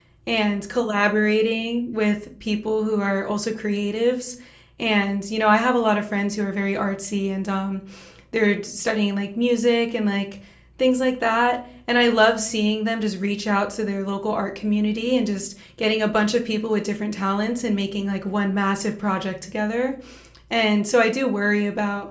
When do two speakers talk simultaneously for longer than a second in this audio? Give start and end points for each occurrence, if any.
none

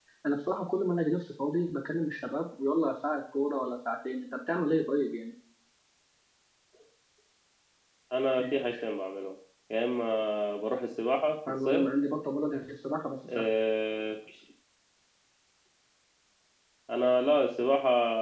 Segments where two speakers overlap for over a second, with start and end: none

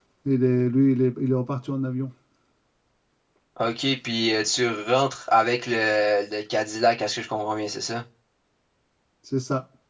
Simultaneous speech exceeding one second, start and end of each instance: none

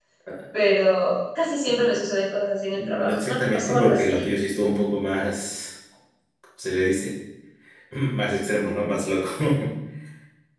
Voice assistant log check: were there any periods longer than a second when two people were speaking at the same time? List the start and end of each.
2.7-4.3

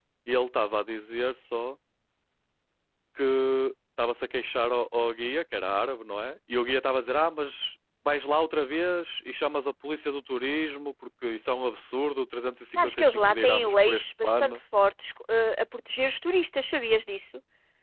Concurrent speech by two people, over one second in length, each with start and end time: 12.8-14.6

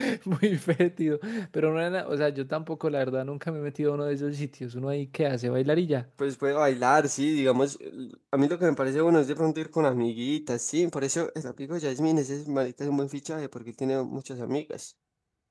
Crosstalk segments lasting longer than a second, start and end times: none

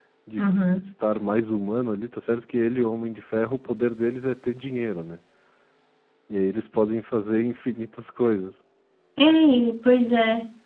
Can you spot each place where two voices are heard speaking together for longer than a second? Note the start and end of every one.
none

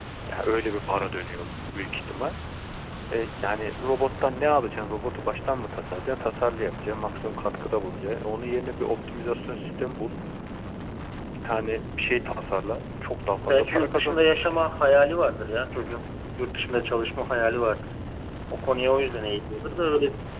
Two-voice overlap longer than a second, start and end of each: 13.4-14.6

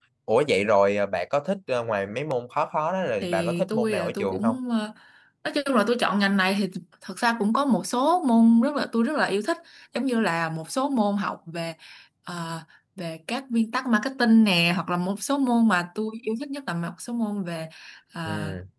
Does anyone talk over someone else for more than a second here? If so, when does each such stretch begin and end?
3.2-4.5

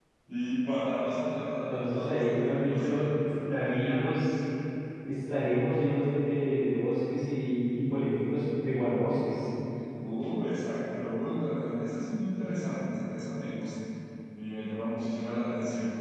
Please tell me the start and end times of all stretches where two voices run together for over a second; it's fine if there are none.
1.5-3.1

